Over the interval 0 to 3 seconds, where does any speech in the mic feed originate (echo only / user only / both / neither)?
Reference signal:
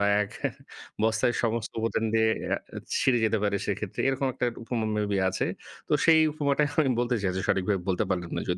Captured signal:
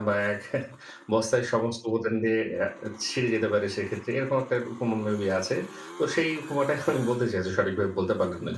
echo only